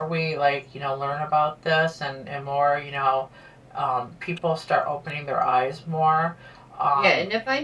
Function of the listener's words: taking over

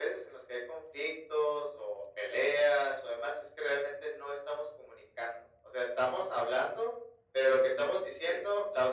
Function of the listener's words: listening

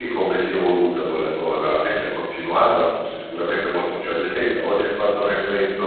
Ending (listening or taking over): taking over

